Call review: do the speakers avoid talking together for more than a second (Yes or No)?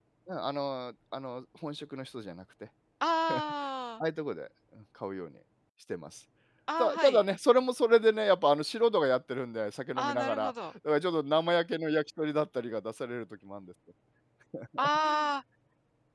Yes